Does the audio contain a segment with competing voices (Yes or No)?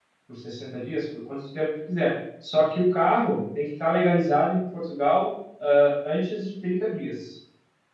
No